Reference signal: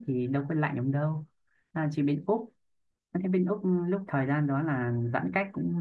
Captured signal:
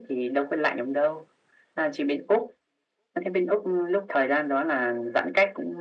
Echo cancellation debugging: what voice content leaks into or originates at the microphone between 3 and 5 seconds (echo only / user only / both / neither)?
echo only